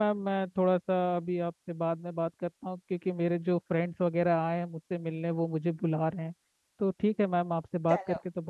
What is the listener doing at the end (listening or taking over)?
listening